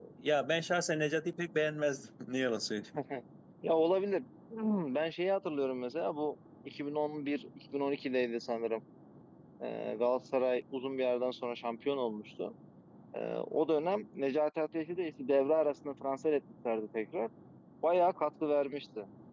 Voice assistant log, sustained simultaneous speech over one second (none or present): none